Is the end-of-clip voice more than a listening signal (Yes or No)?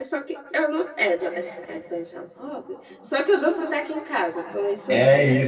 Yes